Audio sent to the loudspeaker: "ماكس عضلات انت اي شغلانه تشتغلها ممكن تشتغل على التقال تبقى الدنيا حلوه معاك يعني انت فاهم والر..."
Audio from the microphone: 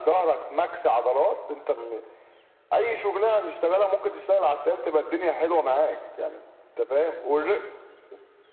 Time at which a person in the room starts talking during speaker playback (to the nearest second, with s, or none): none